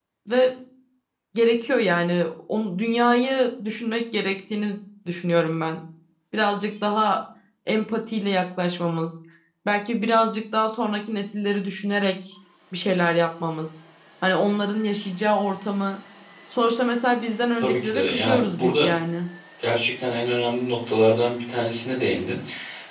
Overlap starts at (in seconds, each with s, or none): 17.6 s